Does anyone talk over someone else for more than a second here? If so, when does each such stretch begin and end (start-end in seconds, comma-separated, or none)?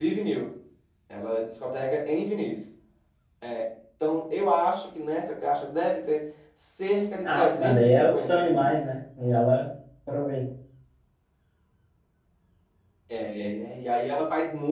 7.2-8.7